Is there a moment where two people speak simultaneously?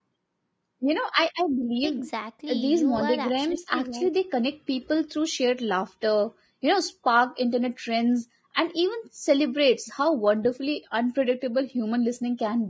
Yes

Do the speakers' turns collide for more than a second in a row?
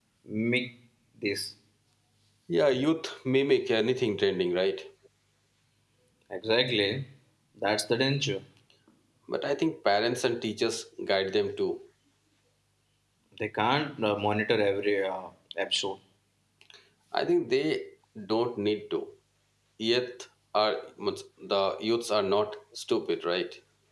No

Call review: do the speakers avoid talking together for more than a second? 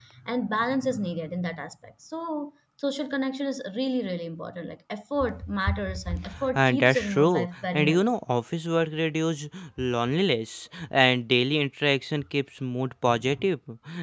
No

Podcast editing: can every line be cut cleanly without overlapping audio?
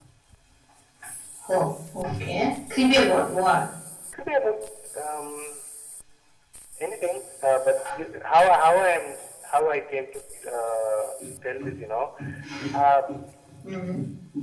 Yes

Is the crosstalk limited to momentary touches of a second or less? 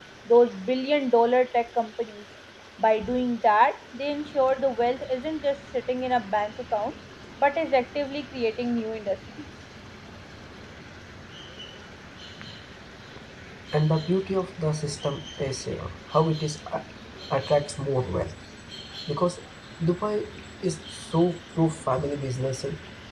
Yes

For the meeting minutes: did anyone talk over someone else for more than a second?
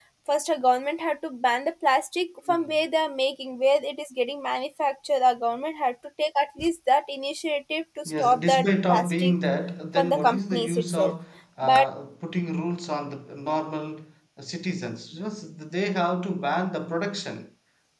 Yes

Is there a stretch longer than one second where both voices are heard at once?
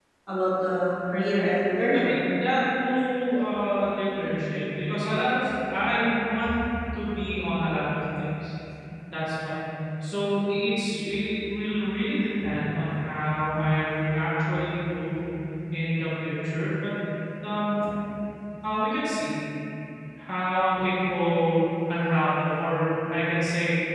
No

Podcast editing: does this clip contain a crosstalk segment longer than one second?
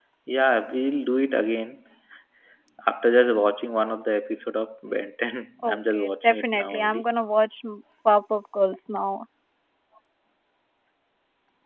Yes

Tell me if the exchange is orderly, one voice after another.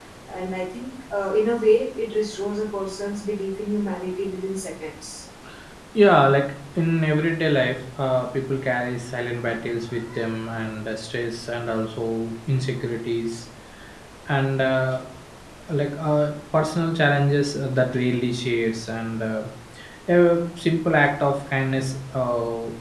Yes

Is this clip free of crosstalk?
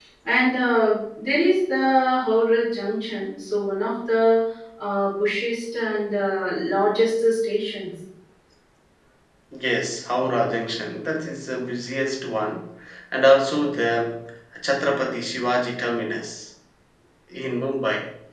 Yes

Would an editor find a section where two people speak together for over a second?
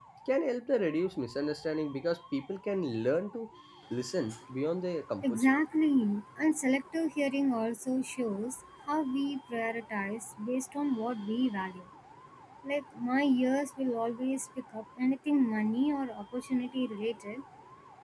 No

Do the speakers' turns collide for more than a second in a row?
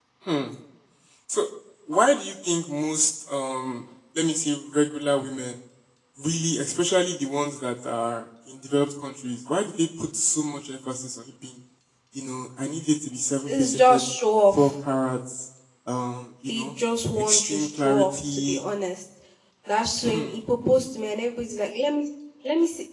Yes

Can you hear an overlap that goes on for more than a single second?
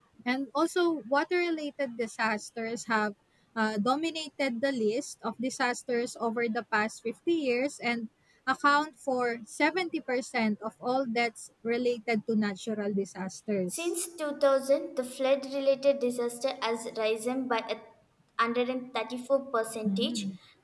No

